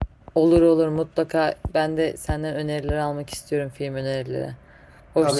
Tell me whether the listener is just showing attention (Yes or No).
No